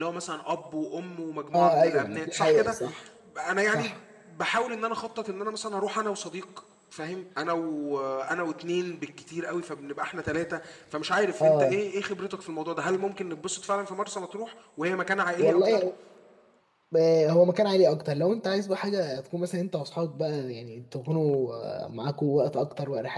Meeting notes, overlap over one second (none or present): present